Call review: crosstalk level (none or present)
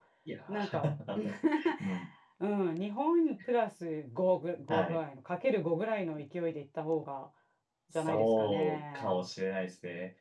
present